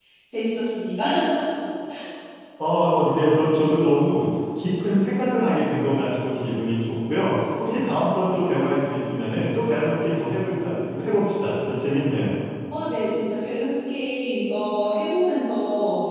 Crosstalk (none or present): none